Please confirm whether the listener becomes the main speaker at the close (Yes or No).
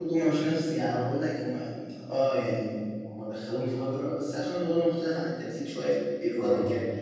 Yes